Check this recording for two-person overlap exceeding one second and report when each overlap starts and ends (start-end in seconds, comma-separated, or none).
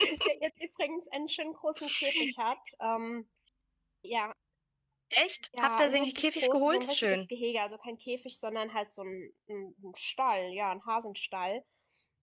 5.6-7.3